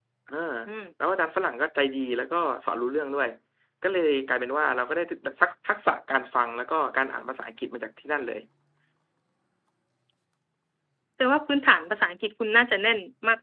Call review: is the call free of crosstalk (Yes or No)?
Yes